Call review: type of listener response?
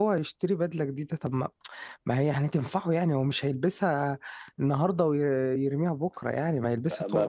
taking over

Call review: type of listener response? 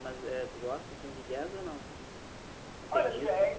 taking over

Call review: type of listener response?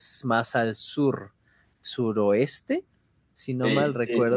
taking over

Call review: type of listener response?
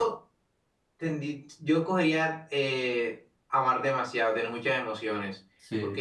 listening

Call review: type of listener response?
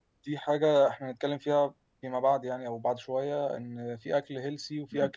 listening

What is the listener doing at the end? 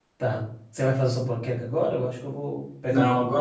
taking over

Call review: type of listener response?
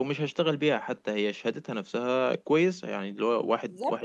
listening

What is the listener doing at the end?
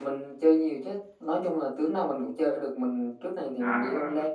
listening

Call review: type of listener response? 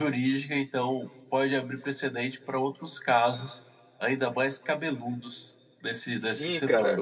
taking over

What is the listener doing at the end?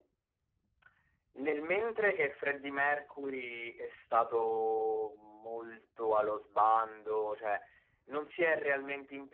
listening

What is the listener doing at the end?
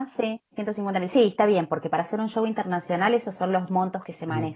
taking over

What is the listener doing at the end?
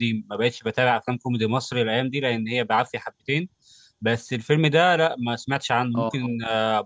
listening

